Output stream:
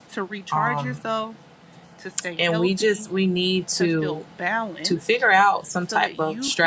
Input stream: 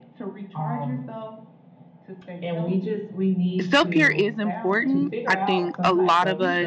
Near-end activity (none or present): present